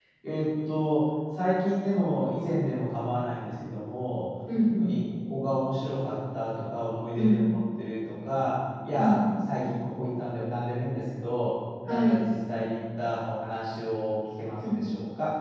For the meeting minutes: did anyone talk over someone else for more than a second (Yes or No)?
No